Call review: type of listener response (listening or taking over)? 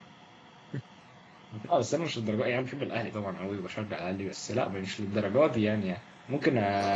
listening